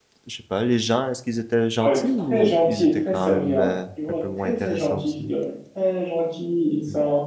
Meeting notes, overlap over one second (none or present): present